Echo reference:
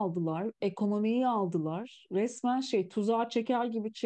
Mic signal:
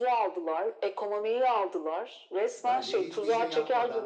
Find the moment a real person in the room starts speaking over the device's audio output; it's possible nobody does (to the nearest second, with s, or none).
3 s